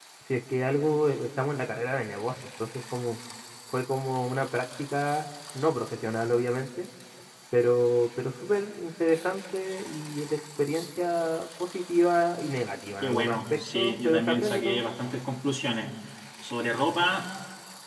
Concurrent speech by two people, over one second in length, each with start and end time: 13.0-14.8

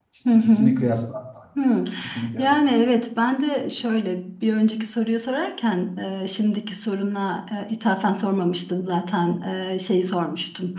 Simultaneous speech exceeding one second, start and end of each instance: none

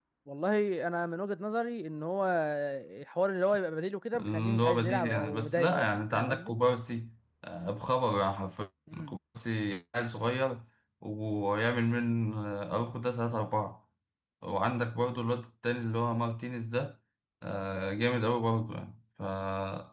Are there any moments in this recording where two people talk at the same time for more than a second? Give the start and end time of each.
4.2-6.5

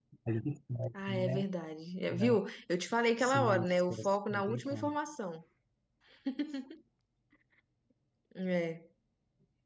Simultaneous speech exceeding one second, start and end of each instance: 3.2-5.0

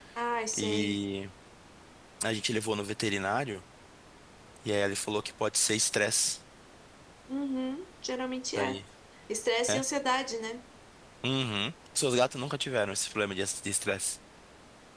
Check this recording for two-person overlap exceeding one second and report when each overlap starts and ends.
none

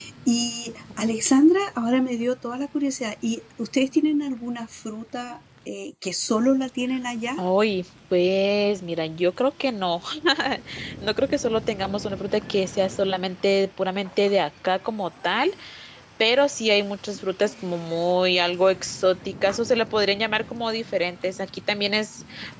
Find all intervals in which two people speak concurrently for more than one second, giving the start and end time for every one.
none

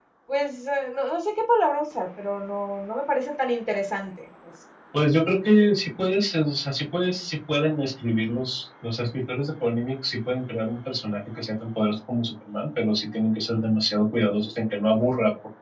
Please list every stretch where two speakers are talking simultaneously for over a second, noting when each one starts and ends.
none

